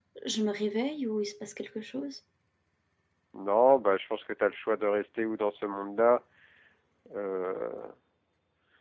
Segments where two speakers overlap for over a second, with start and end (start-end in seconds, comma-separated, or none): none